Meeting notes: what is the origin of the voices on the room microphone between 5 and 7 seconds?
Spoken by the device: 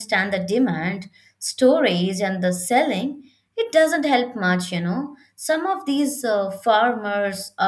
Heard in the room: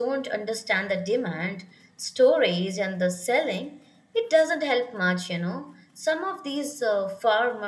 echo only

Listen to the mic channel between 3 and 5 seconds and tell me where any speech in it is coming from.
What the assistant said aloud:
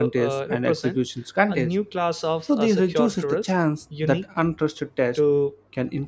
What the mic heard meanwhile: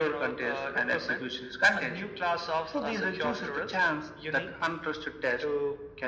echo only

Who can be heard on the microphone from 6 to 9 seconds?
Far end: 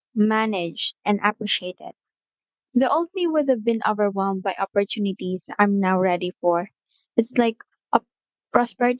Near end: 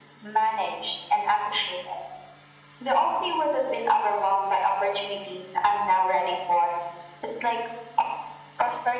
echo only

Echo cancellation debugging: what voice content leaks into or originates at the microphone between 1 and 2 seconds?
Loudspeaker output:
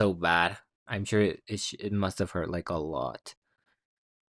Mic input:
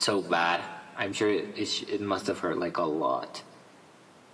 echo only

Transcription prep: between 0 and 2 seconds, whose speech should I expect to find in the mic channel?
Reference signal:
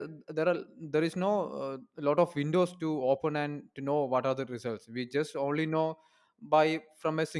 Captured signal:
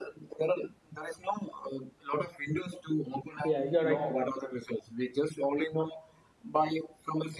echo only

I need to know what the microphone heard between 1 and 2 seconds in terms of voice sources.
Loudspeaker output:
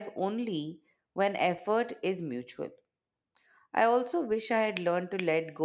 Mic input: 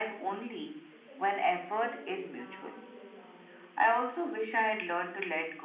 both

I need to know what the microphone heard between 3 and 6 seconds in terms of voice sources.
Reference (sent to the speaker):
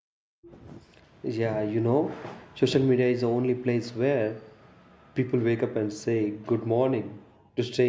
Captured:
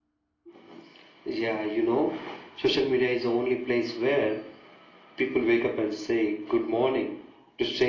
echo only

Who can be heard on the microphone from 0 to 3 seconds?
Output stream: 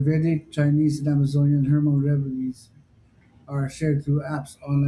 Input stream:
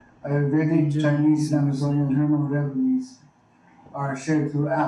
both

